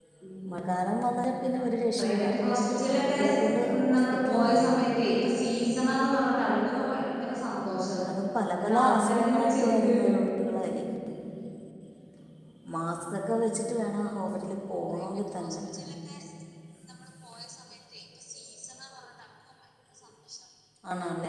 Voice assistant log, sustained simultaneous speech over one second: present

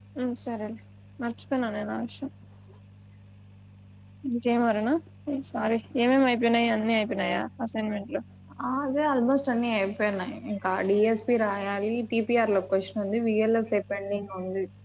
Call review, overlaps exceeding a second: none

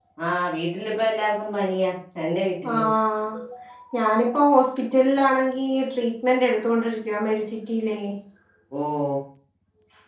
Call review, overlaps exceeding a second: none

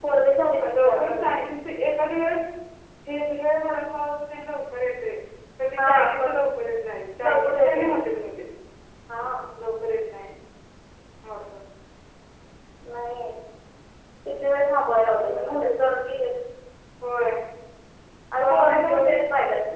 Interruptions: present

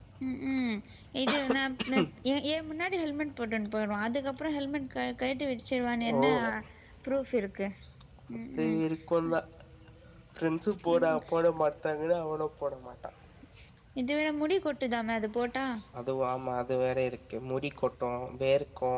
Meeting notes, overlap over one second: none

